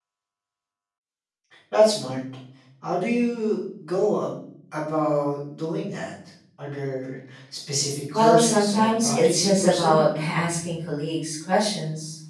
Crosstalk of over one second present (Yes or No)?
Yes